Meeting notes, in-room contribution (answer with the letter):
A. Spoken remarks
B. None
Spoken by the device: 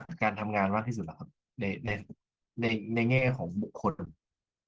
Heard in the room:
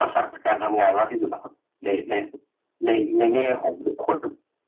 B